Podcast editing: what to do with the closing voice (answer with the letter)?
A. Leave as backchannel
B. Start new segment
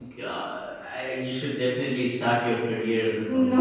A